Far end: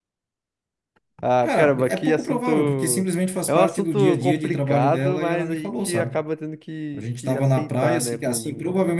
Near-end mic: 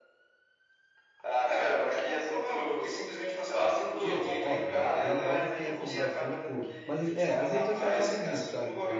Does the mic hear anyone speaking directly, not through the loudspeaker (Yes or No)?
Yes